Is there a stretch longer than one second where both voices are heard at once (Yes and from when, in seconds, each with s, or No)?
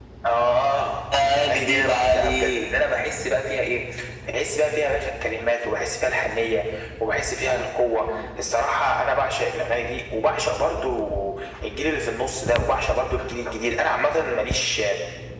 Yes, from 1.2 s